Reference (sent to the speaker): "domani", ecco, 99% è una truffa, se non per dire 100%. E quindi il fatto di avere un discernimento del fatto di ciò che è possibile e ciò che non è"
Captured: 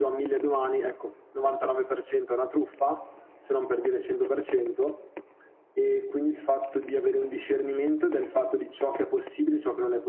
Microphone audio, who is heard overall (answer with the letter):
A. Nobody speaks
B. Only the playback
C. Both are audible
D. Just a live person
B